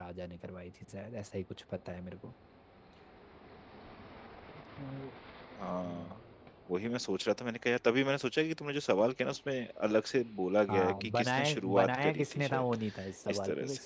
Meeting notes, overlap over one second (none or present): present